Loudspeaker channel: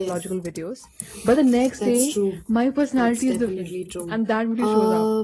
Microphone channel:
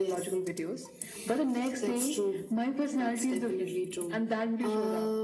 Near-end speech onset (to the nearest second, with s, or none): none